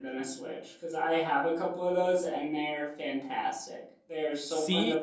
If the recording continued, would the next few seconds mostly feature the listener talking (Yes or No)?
No